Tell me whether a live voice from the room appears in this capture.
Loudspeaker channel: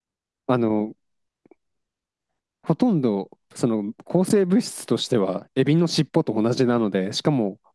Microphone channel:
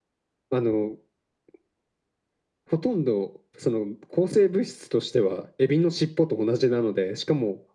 No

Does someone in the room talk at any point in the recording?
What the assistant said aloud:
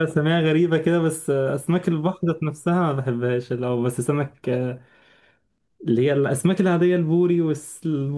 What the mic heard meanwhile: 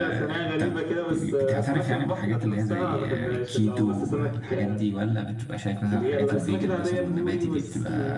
Yes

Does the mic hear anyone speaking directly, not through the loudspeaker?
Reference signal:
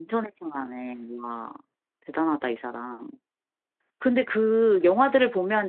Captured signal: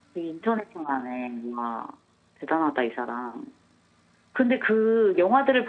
No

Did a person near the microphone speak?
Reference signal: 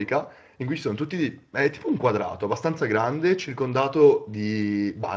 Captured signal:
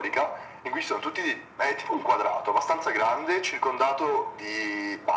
No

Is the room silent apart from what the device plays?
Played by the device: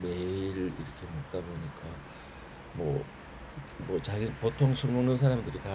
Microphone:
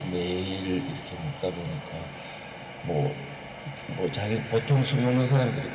Yes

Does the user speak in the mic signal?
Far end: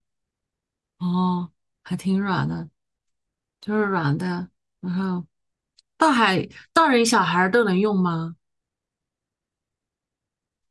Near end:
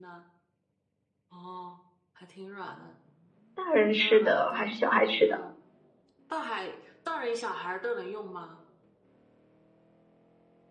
Yes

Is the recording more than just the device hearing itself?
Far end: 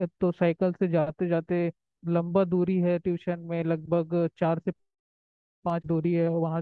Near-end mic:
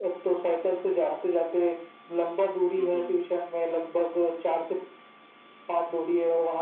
Yes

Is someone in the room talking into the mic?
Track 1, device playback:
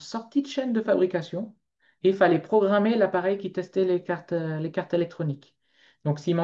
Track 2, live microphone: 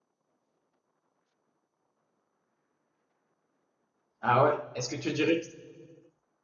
Yes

